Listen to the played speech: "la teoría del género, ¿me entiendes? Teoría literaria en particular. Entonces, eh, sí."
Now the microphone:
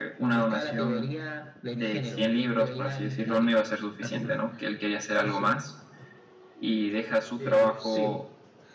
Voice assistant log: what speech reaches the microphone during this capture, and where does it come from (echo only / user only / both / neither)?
both